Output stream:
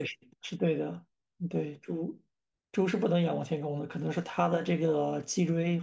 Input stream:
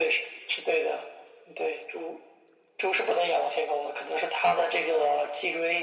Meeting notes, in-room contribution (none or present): none